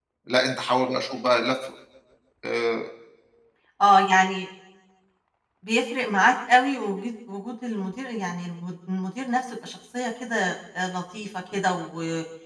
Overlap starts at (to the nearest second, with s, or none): none